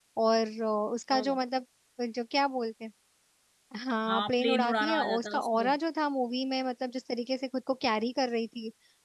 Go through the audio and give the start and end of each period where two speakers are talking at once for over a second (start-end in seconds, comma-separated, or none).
4.1-5.7